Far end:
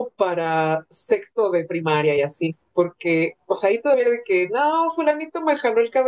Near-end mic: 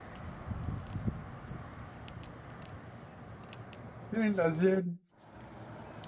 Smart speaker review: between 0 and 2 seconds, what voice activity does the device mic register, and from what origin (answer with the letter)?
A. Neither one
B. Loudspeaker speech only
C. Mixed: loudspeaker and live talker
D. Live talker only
A